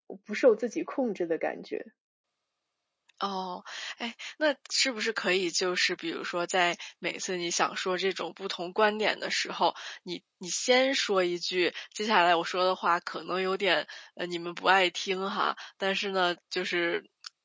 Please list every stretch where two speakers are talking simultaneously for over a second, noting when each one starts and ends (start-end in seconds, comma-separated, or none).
none